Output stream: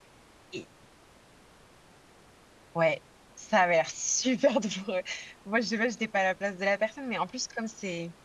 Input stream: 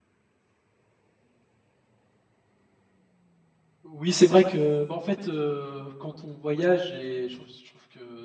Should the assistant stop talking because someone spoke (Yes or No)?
Yes